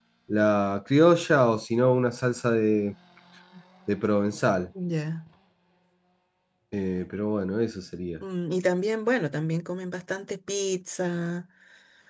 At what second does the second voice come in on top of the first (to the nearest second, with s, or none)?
none